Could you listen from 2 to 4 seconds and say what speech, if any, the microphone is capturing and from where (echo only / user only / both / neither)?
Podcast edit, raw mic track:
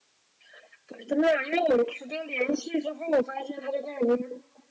echo only